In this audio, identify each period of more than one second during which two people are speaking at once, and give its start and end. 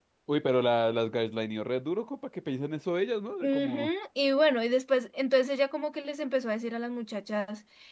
none

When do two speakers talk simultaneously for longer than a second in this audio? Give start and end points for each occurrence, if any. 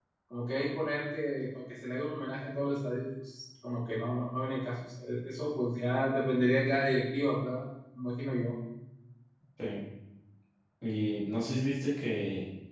none

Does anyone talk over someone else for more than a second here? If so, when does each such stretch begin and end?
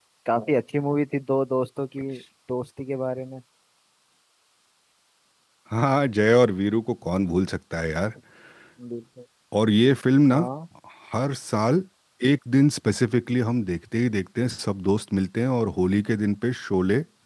none

